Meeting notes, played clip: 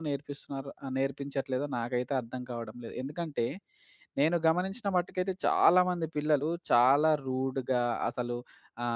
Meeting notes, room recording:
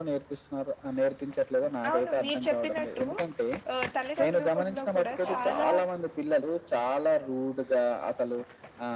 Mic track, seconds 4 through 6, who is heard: both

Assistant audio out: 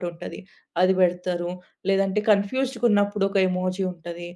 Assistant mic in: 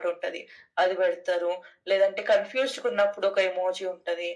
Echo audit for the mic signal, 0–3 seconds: echo only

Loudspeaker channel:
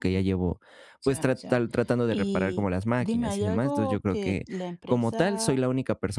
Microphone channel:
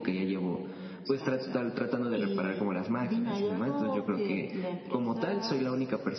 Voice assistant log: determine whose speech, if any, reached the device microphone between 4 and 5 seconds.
echo only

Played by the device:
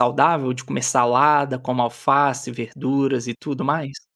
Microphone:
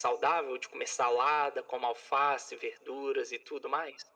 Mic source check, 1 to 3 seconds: echo only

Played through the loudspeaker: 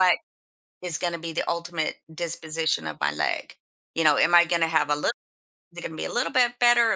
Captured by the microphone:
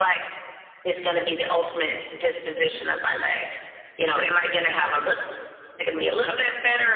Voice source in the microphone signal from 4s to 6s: echo only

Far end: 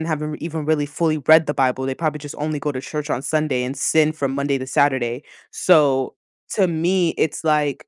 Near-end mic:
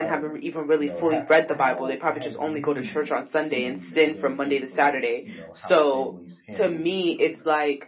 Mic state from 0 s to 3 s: both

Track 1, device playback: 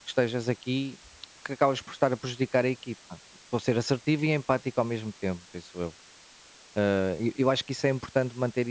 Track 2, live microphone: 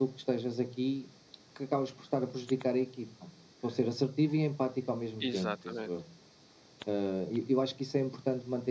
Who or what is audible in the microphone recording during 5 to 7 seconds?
both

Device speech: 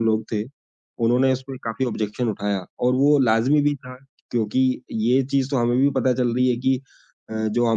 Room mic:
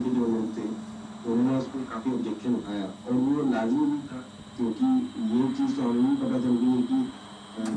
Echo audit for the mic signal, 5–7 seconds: echo only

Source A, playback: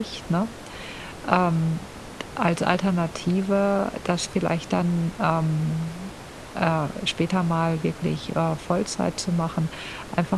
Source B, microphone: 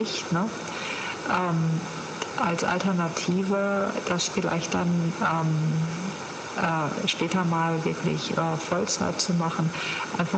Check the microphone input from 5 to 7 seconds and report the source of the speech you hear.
echo only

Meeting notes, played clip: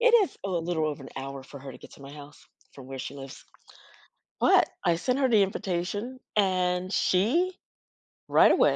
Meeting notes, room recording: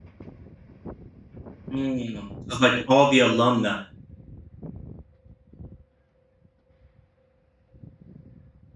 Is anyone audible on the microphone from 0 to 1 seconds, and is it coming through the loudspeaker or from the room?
neither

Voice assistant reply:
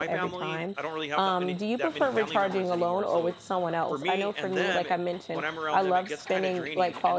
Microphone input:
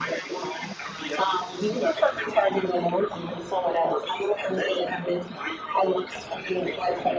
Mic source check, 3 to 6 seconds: echo only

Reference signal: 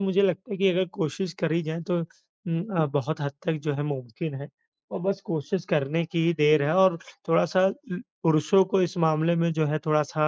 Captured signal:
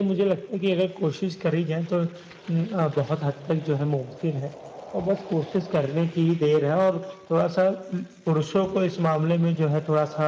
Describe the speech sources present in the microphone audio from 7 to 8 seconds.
echo only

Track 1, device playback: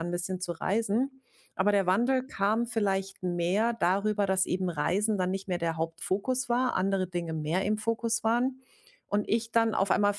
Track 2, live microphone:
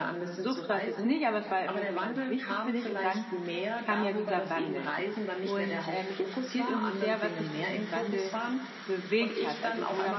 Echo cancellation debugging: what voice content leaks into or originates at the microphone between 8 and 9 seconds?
both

